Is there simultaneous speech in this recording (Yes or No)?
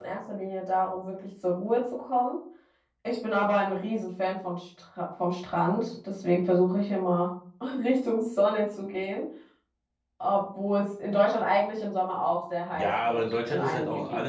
Yes